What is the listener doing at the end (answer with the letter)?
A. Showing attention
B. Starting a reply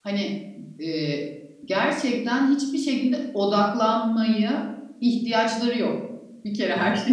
A